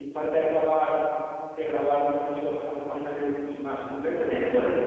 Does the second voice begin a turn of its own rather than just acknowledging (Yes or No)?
Yes